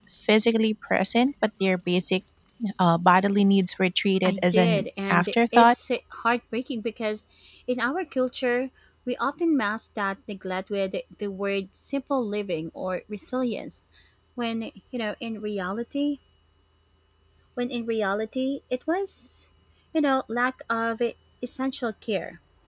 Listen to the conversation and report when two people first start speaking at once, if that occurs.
4.2 s

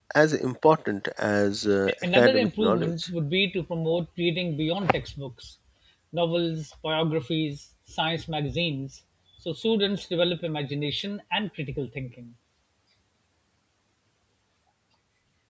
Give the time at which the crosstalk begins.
1.9 s

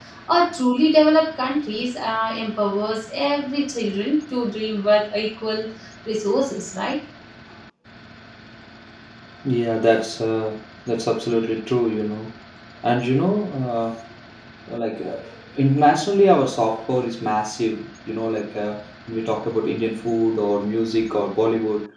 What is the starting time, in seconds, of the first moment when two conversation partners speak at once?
none

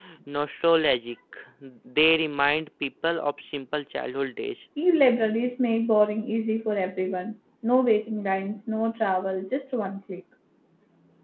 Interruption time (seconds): none

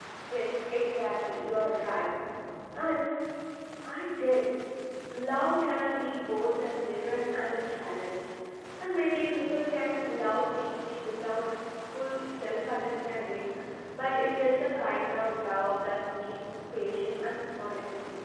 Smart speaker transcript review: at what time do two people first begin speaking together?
none

